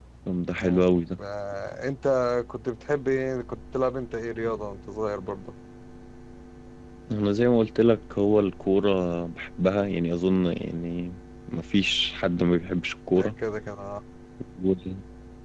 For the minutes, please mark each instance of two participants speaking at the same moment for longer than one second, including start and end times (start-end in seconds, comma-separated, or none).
none